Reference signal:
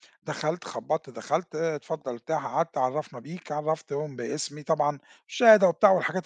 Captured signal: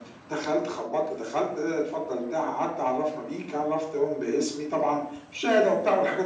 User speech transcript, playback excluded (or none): none